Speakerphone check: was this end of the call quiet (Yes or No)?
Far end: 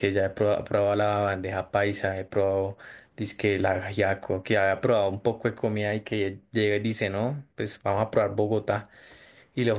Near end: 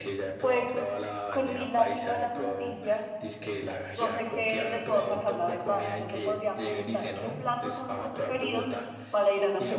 No